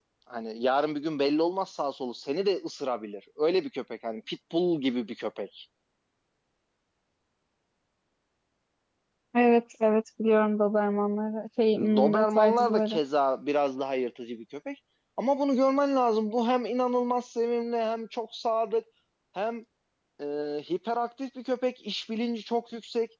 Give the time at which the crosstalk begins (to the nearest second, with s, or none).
12 s